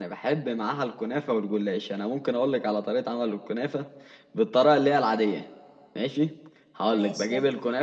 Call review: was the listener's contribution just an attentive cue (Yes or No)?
Yes